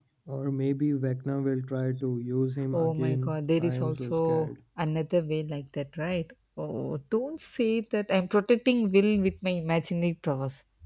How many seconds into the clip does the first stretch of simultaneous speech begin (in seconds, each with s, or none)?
2.7 s